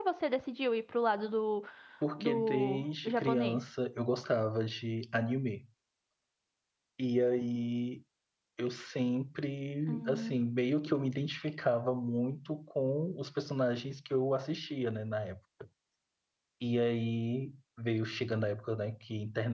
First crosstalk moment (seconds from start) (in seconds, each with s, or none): 2.2 s